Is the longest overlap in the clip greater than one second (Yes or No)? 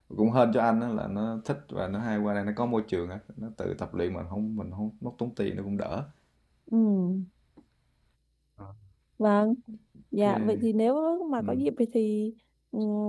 No